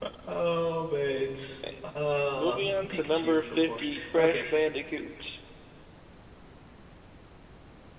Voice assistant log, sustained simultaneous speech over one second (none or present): present